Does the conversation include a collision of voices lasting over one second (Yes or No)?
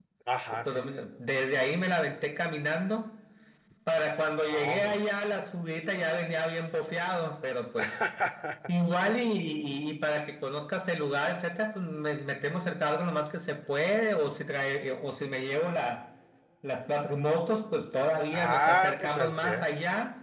Yes